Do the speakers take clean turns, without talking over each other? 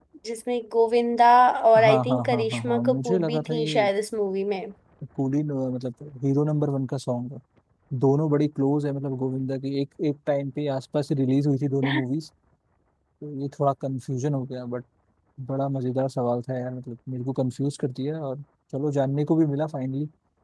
No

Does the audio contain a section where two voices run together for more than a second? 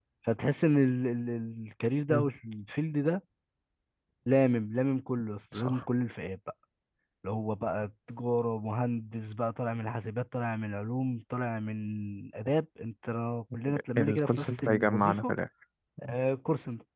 Yes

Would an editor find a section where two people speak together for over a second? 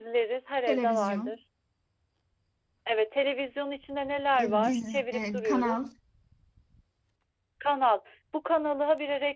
Yes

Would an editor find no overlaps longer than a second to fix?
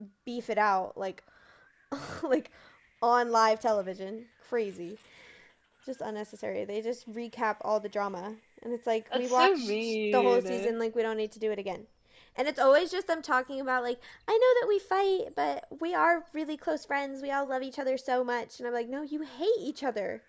No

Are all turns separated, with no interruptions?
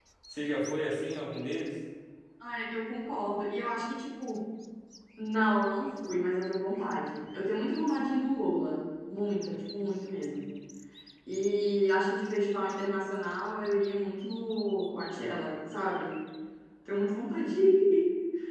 Yes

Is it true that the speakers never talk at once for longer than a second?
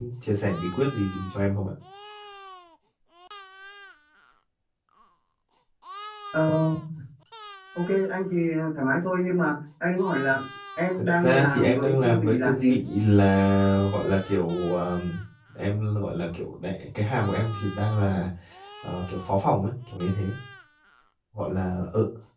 No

